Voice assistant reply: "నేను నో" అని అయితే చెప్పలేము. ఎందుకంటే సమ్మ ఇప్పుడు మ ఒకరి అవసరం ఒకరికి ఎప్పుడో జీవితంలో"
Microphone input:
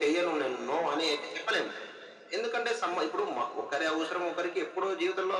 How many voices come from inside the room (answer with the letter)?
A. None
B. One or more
A